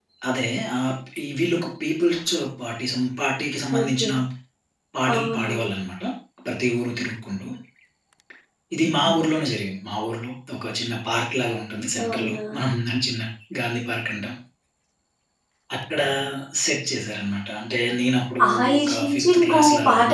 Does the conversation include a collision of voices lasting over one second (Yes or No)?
Yes